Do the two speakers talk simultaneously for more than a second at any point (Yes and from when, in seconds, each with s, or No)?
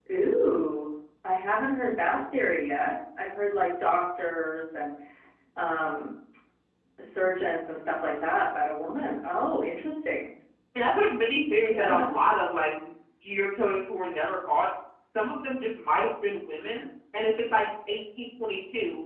No